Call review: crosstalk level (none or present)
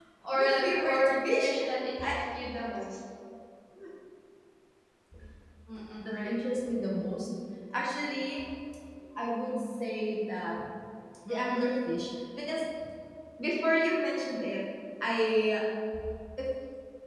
present